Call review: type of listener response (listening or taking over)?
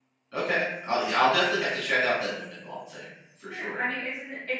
taking over